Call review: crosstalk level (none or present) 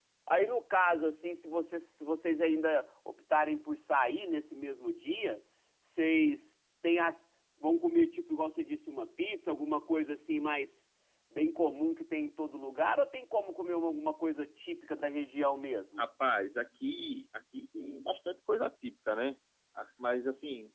none